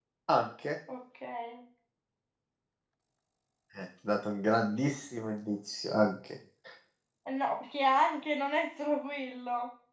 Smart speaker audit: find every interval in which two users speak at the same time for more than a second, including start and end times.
none

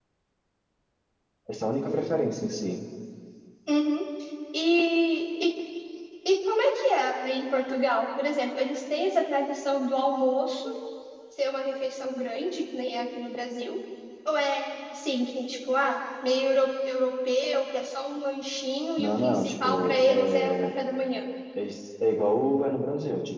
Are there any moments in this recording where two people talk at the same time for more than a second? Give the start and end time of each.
19.0-20.7

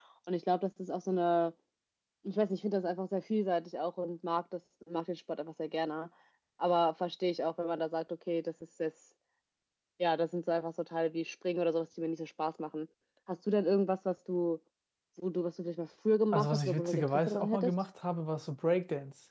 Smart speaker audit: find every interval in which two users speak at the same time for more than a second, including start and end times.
16.3-17.7

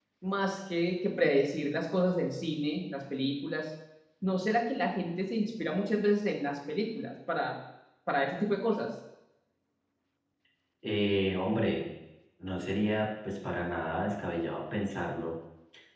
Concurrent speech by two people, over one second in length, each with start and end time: none

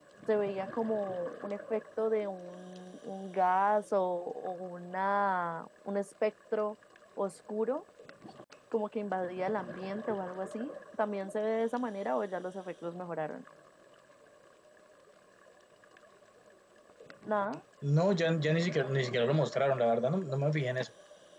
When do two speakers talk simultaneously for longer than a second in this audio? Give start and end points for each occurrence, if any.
none

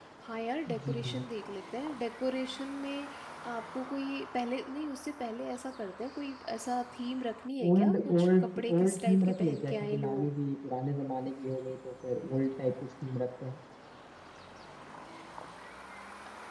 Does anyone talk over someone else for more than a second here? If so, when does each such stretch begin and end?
7.7-10.4

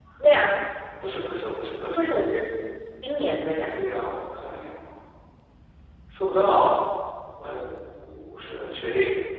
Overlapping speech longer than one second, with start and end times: none

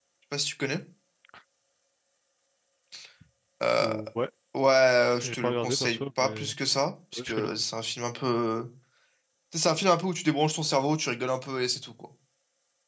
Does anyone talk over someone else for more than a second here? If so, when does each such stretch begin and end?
5.2-6.5

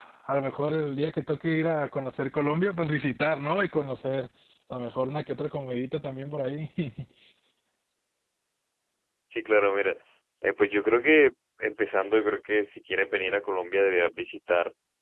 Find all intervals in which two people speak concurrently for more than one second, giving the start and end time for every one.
none

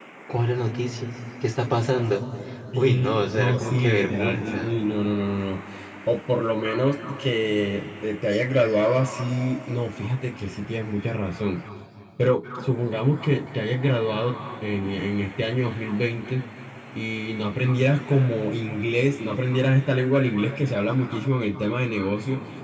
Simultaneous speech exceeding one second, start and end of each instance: 2.8-4.7

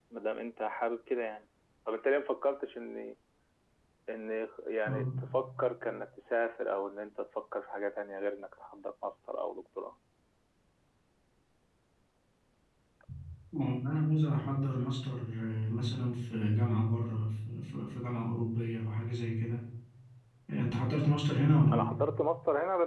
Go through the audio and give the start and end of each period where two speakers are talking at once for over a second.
none

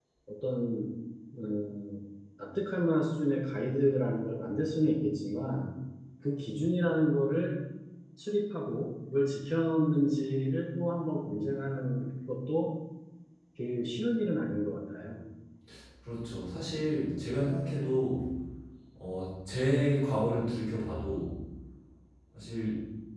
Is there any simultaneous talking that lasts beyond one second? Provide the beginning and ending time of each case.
none

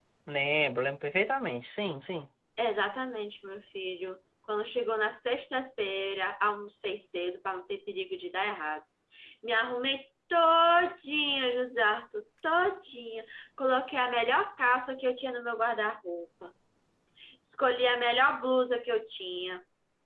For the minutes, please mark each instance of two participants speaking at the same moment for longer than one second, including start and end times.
none

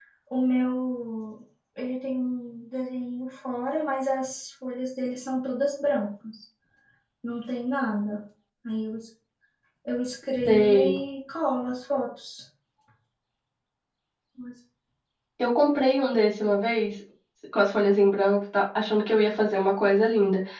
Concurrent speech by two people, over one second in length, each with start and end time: none

